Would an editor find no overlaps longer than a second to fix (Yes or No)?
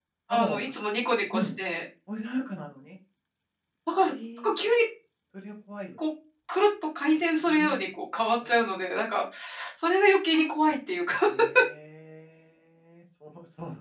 Yes